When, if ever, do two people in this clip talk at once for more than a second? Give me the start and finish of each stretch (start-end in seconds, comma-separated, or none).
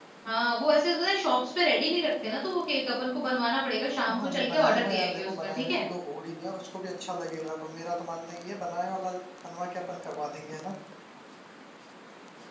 4.1-5.8